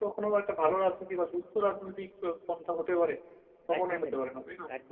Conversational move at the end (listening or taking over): taking over